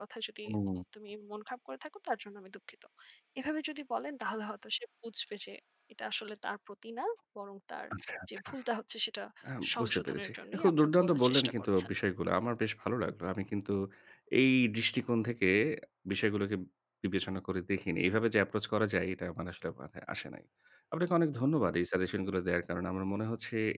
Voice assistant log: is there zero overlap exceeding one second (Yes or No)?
No